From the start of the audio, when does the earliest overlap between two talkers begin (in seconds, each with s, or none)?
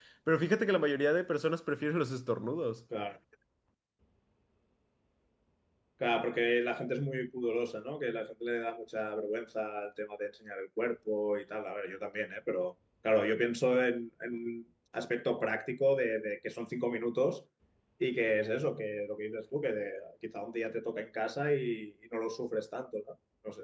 none